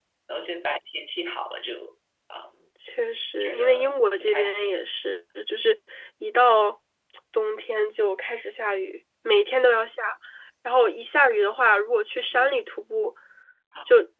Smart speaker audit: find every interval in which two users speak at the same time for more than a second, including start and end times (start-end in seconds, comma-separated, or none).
3.4-4.8